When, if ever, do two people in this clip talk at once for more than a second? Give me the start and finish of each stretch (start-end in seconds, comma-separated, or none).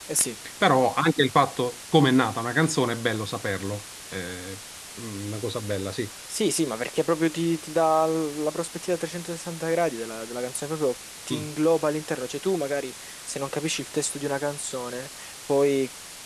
none